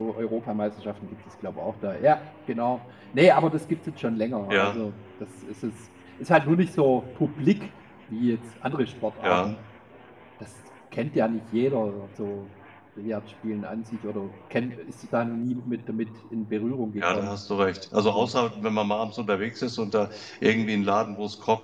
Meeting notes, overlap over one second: none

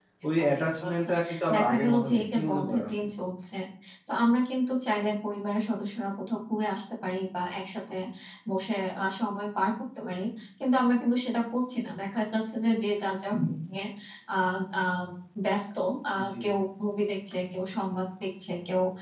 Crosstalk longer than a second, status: present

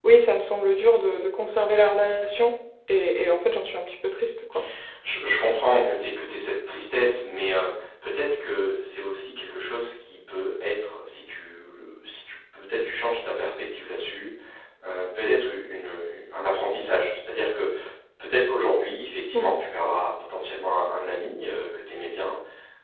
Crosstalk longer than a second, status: none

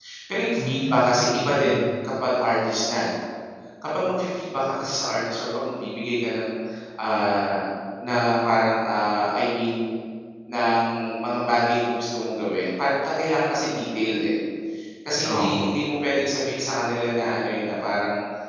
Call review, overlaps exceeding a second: present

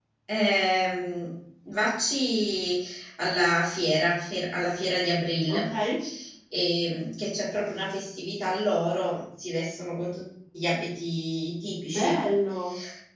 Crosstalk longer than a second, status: none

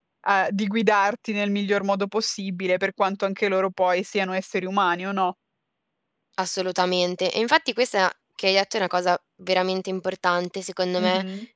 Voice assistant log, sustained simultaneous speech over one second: none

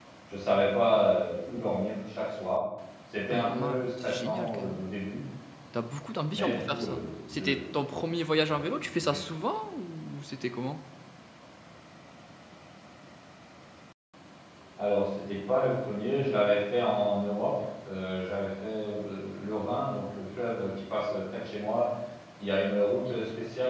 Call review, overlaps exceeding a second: present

